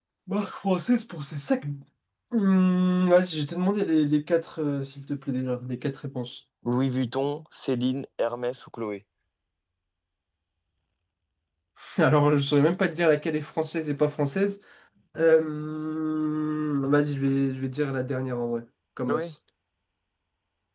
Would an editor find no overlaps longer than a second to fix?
Yes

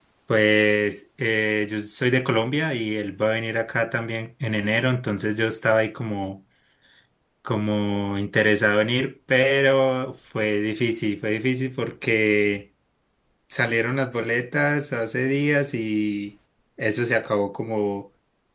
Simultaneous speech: No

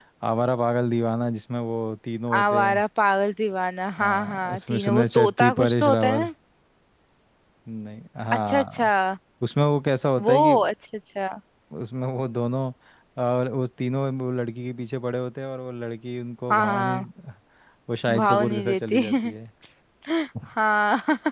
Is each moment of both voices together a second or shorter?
No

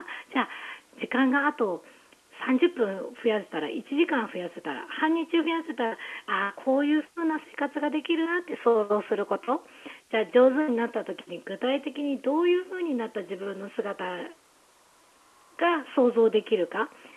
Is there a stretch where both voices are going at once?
No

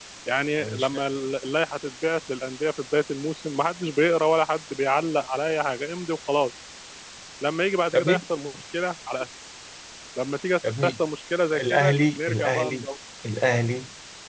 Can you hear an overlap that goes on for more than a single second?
Yes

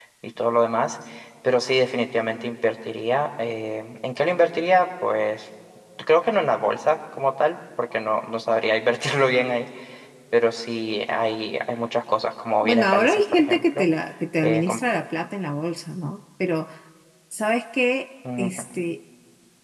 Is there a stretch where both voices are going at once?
Yes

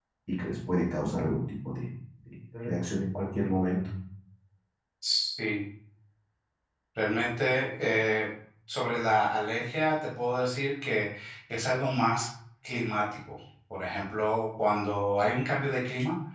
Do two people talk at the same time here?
No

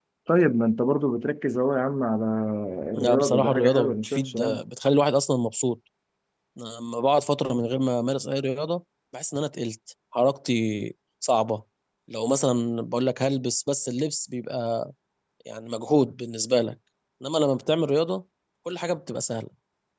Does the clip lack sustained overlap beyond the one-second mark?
No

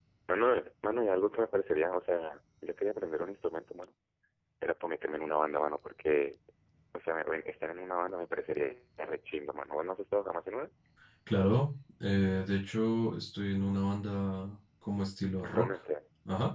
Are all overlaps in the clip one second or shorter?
Yes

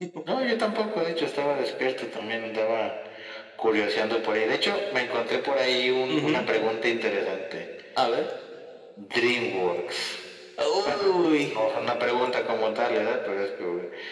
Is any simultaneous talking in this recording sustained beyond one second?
No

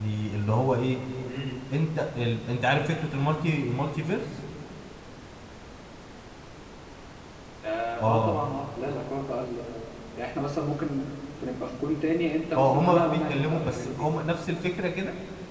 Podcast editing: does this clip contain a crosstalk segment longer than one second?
Yes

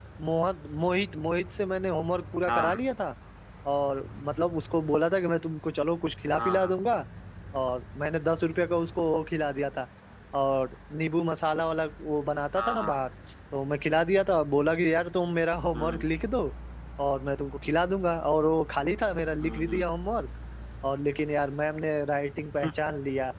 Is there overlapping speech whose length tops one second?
No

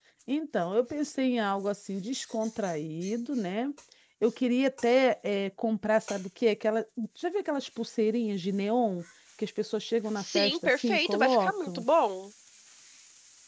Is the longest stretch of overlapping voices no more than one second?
No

